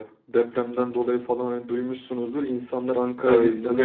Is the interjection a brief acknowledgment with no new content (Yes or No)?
No